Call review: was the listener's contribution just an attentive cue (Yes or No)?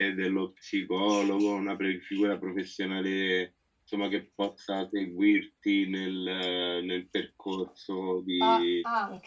No